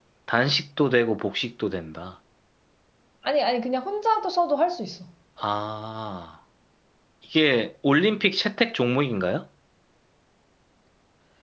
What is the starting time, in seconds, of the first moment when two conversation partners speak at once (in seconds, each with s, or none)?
none